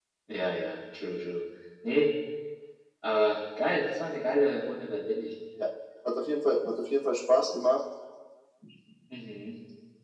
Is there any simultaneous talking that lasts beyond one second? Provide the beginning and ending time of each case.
none

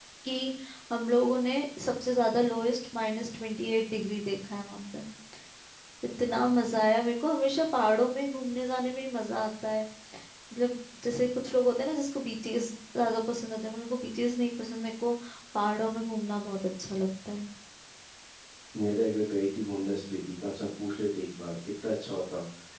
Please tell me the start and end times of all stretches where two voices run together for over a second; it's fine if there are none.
none

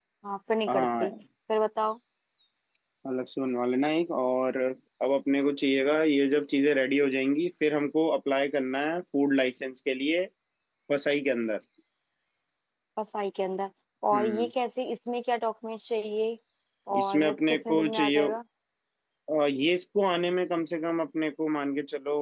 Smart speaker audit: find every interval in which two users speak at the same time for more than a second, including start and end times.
17.0-18.3

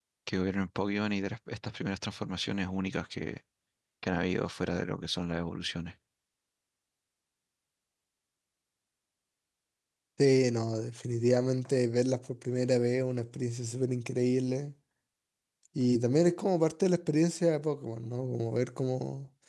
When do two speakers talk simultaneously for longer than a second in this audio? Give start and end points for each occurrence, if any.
none

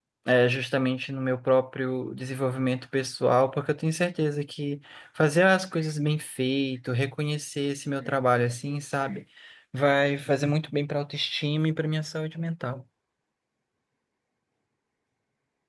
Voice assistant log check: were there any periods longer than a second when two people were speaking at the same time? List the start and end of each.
none

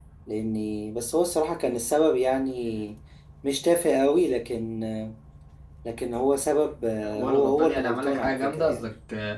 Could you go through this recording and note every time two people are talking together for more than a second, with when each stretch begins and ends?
7.2-8.9

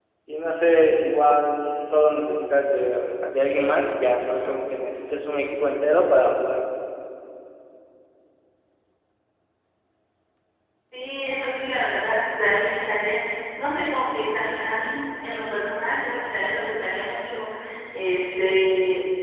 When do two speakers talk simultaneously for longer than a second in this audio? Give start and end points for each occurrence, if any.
none

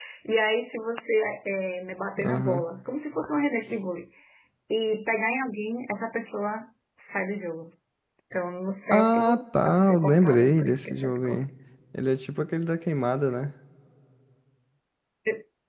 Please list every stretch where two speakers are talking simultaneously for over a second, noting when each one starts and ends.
8.9-11.5

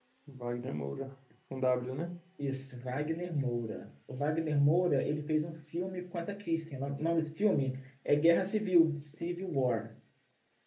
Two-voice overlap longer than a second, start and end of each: none

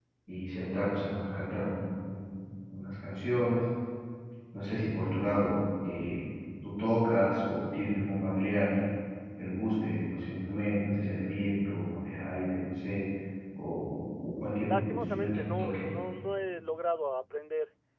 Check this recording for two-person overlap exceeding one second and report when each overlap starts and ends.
14.7-15.9

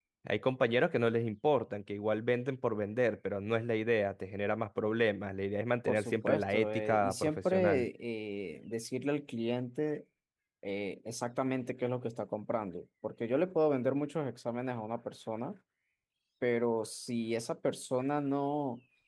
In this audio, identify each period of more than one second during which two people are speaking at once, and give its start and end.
5.9-7.9

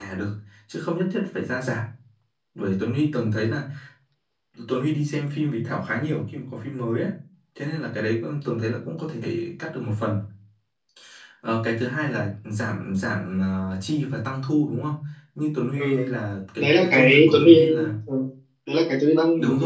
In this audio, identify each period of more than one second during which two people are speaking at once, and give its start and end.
16.6-17.9

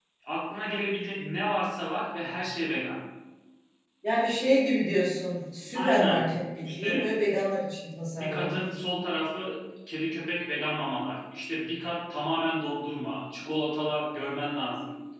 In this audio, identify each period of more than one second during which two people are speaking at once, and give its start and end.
none

